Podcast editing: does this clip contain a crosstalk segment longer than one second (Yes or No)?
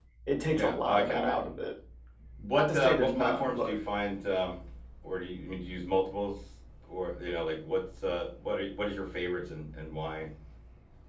Yes